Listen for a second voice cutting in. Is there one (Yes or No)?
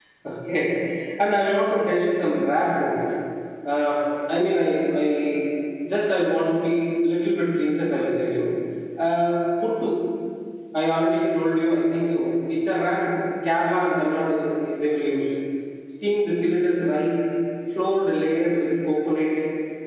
No